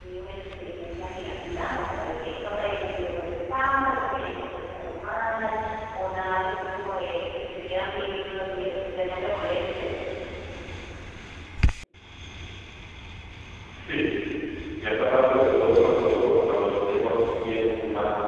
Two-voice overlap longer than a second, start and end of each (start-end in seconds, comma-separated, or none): none